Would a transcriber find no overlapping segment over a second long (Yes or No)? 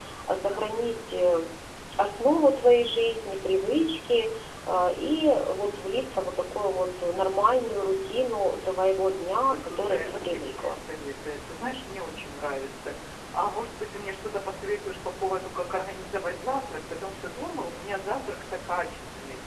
No